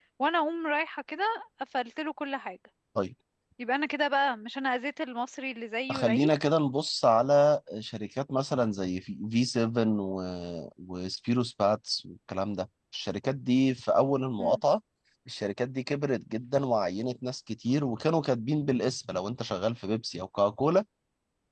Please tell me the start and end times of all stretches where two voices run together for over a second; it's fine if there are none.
none

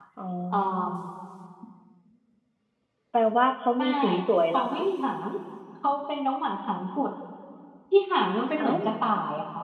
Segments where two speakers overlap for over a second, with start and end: none

